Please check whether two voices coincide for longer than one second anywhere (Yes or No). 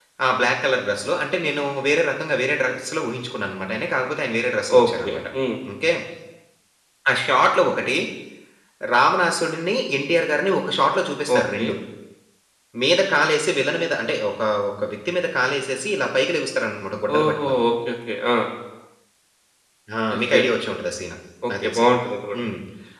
No